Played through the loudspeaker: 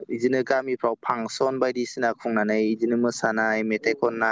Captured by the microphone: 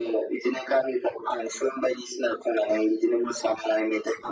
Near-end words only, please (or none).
none